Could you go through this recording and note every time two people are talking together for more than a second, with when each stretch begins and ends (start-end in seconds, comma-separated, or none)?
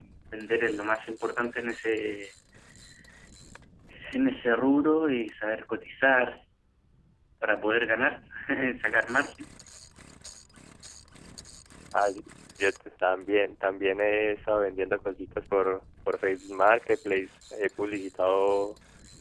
none